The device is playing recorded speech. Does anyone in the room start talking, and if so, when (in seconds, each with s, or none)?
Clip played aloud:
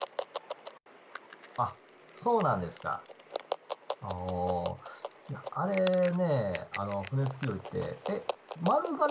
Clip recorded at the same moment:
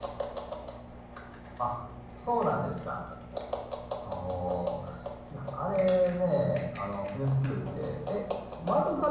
none